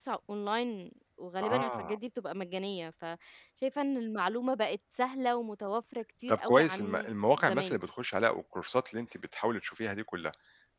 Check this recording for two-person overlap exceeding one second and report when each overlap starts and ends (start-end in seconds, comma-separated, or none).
6.3-7.8